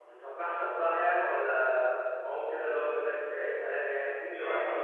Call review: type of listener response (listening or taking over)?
taking over